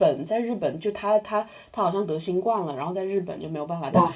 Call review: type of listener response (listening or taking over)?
listening